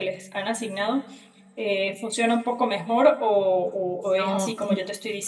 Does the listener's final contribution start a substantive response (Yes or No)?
Yes